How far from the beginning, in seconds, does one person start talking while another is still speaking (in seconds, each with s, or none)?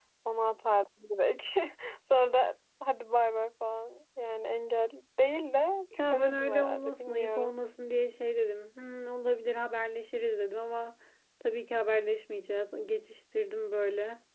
5.9 s